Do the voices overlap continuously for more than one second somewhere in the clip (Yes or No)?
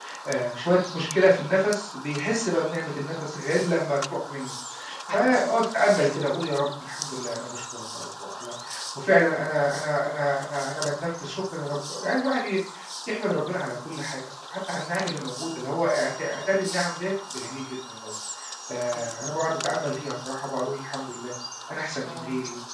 No